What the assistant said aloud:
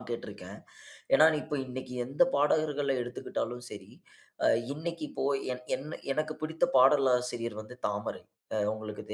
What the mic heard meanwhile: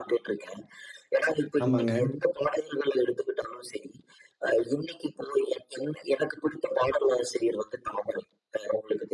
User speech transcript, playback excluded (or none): ஆமாங்க.